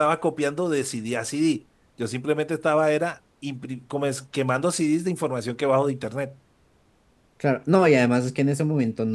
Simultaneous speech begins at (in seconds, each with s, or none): none